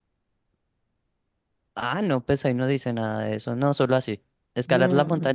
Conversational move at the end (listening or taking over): listening